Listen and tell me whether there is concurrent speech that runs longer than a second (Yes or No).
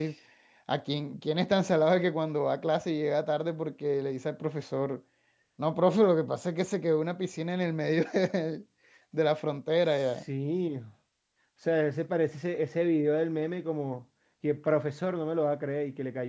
No